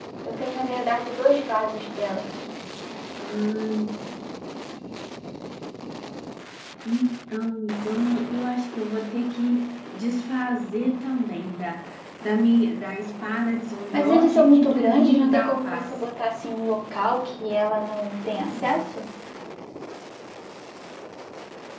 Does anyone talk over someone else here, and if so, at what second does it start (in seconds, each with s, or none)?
13.9 s